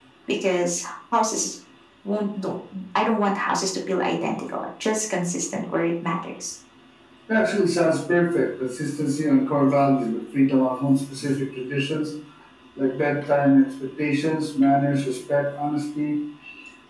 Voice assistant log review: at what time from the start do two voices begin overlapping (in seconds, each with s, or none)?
none